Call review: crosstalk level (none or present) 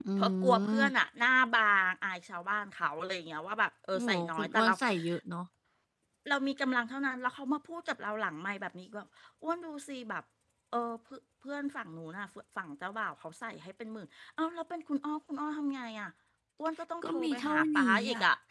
present